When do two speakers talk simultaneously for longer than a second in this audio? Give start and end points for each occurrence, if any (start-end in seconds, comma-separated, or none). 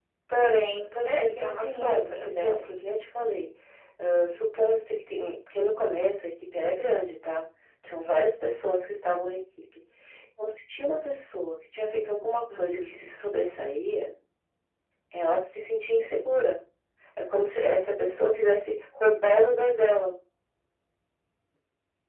1.0-2.7